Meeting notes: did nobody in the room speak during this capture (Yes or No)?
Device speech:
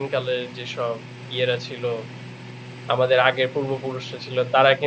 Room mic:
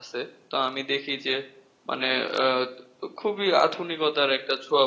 No